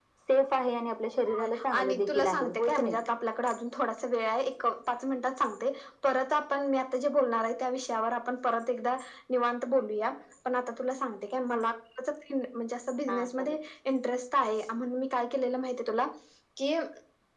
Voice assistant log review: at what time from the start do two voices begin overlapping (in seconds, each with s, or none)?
1.4 s